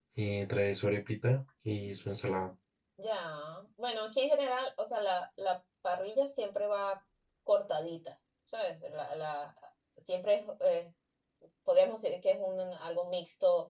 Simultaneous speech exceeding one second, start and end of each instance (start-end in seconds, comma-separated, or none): none